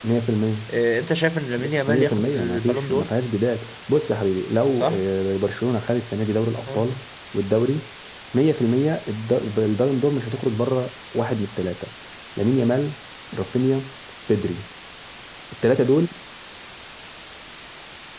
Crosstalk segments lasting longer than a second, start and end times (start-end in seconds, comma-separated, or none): 1.9-3.1